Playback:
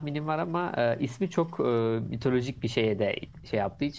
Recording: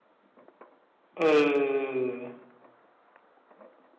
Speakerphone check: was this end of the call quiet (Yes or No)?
No